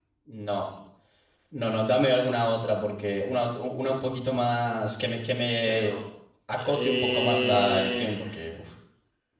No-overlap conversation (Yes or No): No